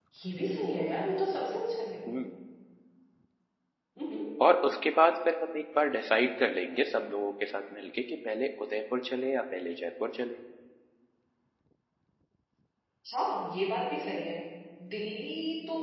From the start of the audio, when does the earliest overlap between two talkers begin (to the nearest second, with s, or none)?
none